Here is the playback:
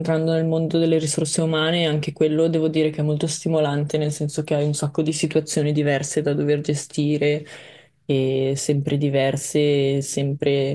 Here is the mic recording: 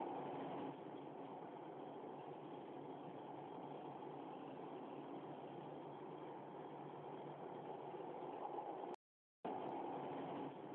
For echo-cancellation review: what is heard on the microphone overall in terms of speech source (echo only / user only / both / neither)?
neither